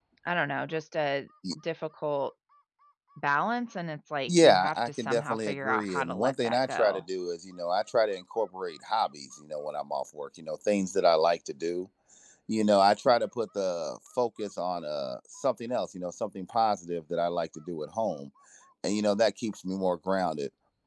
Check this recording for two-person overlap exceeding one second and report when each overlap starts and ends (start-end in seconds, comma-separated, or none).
4.3-7.0